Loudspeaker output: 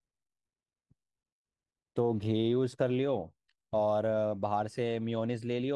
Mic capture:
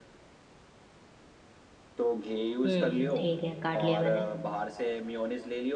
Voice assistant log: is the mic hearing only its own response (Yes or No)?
No